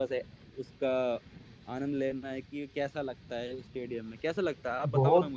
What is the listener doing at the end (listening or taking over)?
taking over